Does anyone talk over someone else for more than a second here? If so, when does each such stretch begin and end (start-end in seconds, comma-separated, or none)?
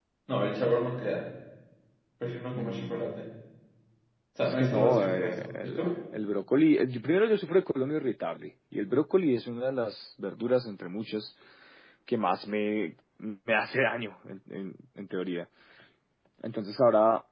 4.4-5.9